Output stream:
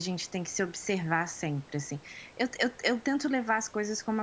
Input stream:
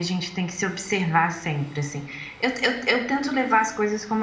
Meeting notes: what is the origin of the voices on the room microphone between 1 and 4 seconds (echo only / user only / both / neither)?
echo only